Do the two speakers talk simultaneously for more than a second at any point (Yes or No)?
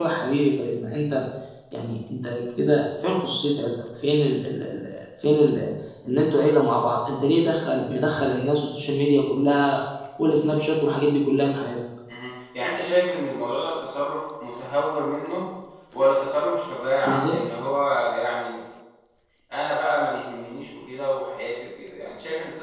No